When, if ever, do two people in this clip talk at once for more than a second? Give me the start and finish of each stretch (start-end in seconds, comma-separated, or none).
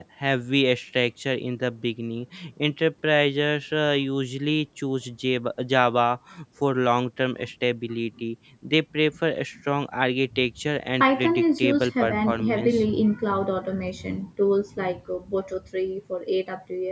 11.0-12.8